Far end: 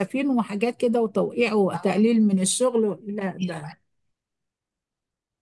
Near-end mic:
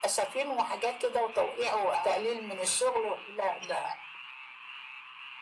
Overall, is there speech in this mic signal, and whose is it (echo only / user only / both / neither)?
echo only